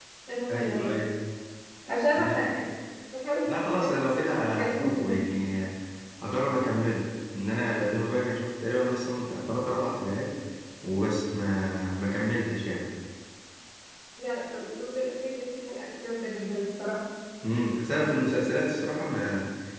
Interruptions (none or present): present